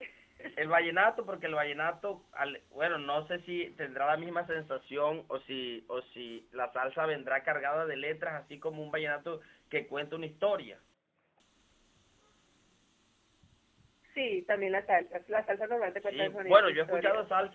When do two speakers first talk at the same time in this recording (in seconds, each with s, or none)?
16.0 s